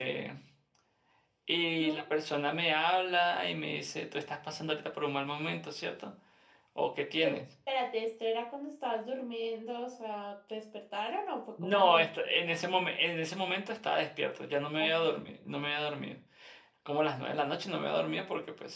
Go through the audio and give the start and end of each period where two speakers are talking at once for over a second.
11.6-12.8

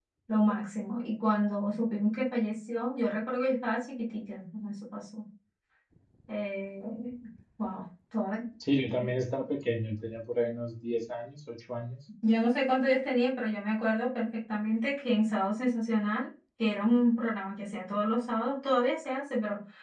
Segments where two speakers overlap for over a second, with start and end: none

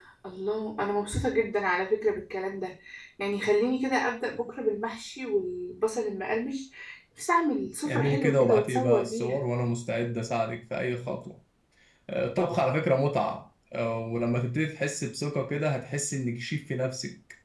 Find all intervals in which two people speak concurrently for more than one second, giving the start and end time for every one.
7.9-9.4

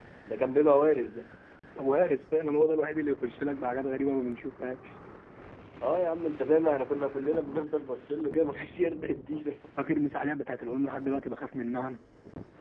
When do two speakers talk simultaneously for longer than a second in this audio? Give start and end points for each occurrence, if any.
none

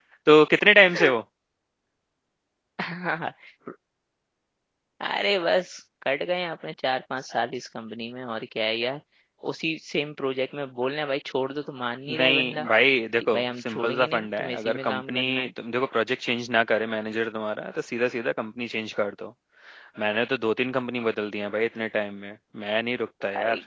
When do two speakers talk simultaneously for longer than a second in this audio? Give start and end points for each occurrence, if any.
13.2-15.5

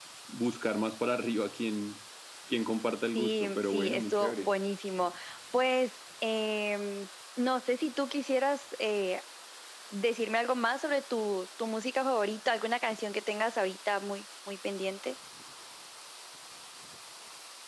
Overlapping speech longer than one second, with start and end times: 3.2-4.5

